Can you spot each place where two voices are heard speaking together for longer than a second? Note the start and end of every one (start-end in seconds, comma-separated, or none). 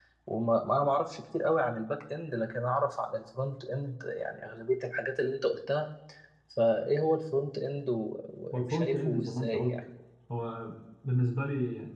8.5-9.8